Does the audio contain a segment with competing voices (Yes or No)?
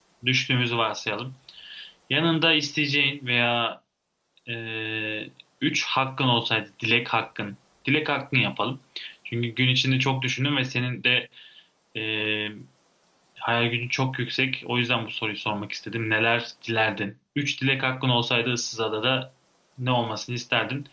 No